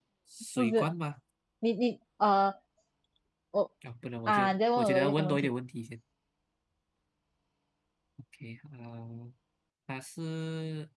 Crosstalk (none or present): present